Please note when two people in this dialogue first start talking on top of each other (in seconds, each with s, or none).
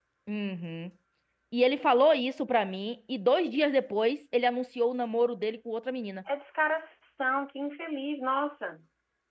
none